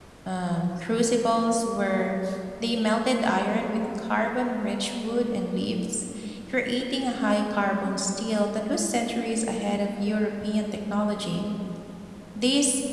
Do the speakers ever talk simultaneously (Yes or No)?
No